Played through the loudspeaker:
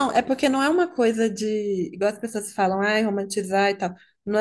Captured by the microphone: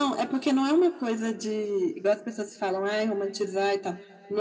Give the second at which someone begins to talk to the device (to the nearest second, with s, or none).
none